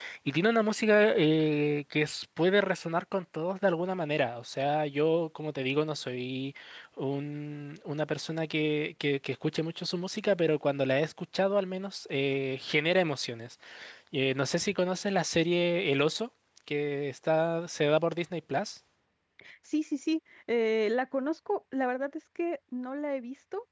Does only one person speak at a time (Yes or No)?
Yes